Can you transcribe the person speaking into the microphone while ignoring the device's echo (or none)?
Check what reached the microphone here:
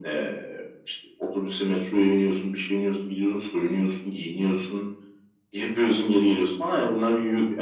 none